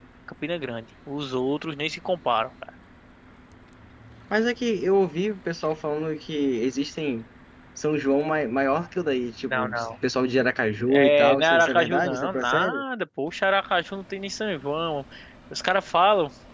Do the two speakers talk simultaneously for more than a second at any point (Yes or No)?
Yes